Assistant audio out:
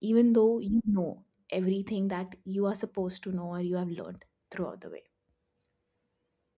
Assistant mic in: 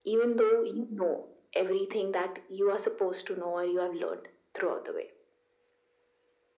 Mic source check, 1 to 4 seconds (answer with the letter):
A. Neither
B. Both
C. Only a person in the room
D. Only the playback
D